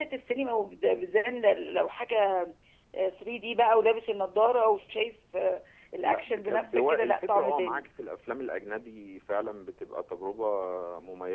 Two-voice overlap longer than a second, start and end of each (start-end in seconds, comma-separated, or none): 6.0-7.8